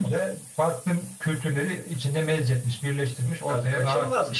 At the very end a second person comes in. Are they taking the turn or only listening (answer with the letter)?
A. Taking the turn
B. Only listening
A